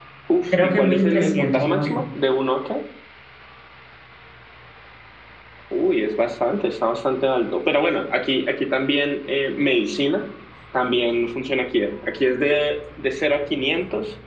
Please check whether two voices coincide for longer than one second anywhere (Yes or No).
Yes